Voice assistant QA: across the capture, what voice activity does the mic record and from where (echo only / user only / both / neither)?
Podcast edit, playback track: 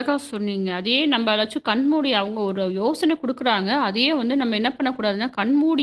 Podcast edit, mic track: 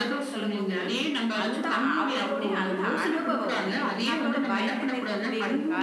both